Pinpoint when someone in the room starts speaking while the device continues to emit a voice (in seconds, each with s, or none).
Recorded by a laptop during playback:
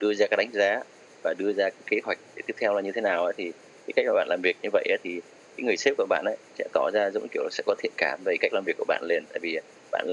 none